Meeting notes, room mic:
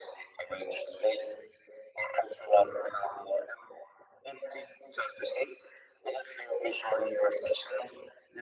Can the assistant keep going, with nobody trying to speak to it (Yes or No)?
Yes